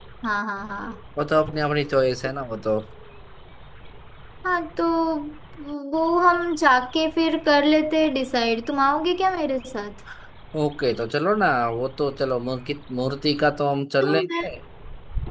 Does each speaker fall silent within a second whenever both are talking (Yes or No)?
Yes